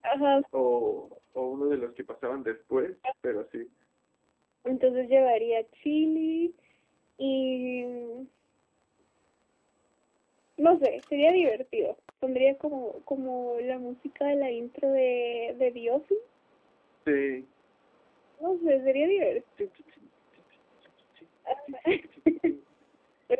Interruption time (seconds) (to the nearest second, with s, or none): none